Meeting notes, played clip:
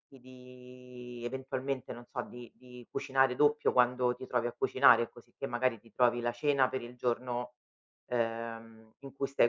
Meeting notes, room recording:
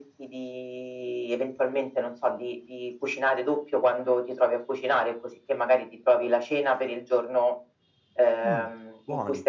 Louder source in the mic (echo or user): echo